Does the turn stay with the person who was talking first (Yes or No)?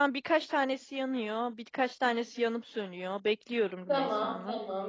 No